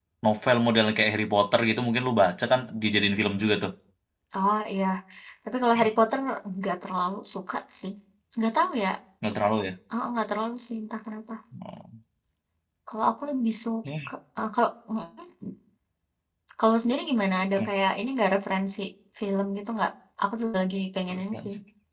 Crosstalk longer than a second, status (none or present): none